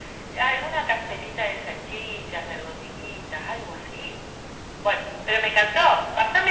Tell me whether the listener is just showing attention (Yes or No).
Yes